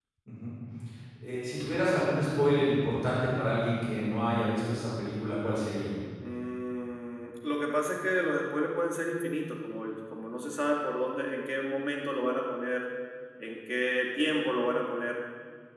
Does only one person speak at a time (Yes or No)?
Yes